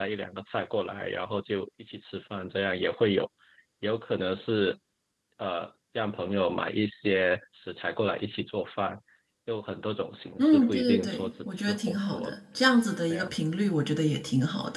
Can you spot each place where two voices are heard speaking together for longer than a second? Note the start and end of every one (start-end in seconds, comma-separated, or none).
10.4-12.3